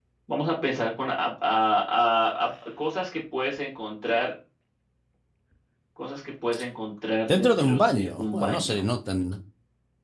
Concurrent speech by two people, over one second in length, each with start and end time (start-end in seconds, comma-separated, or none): 7.3-8.8